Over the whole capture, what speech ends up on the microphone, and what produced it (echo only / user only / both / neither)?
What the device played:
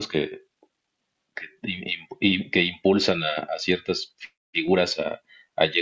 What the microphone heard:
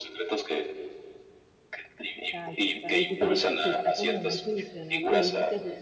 both